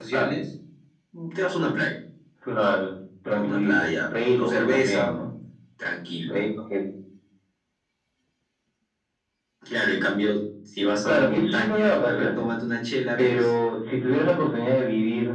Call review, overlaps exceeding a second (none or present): present